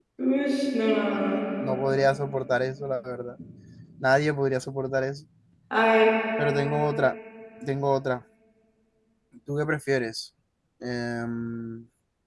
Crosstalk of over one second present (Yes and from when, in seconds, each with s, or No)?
No